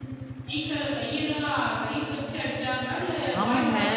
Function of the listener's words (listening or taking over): taking over